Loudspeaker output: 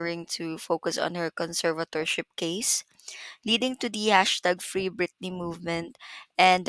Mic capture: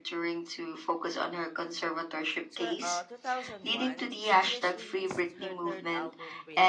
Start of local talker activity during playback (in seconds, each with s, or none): 2.5 s